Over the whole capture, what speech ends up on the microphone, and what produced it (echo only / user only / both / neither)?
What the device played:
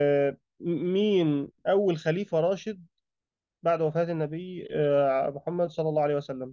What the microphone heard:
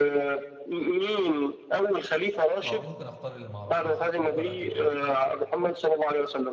both